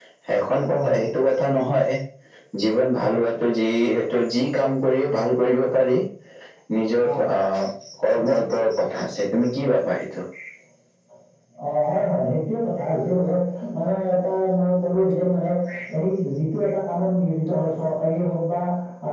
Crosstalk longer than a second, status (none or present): none